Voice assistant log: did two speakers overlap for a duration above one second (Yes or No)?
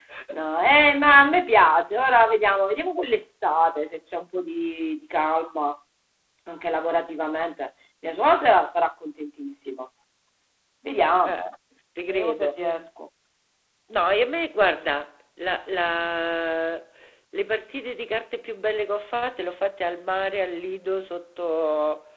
No